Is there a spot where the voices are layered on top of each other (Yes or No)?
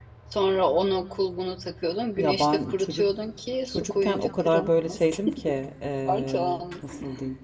Yes